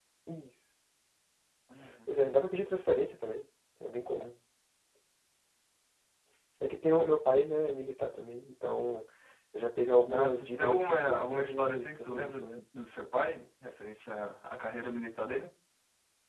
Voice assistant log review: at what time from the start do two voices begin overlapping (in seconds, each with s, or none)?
10.1 s